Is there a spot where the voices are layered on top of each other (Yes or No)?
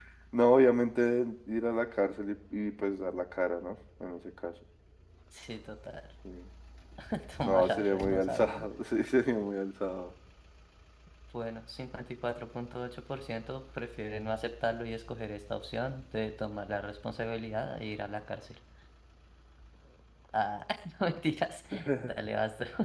Yes